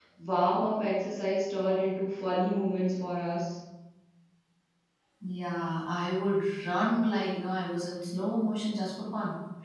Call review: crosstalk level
none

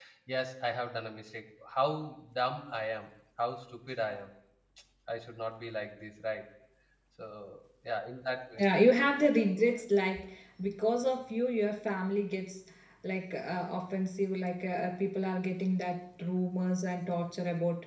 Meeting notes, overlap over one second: none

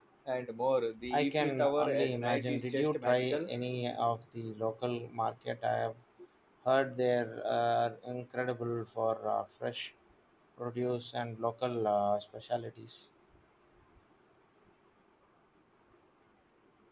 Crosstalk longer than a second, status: present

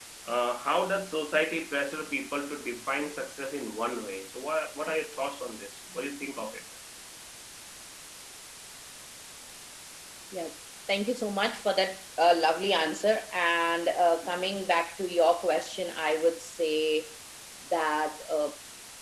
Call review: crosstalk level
none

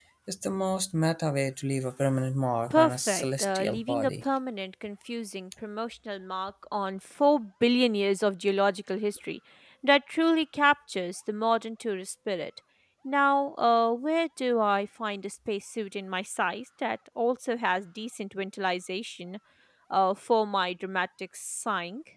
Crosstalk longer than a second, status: present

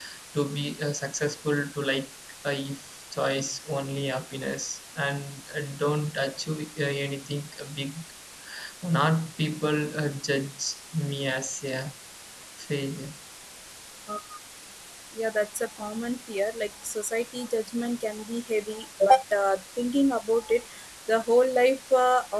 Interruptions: none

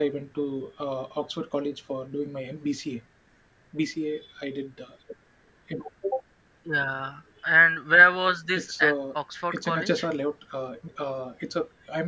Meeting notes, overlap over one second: none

